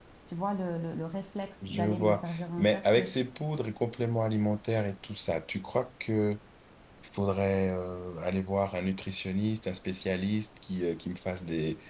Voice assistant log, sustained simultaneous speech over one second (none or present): present